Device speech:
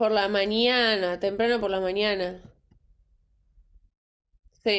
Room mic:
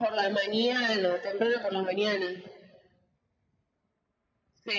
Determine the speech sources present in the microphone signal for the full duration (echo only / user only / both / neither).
echo only